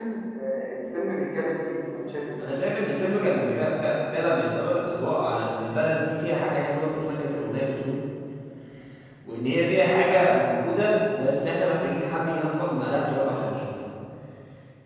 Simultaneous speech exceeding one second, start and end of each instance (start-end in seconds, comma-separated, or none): none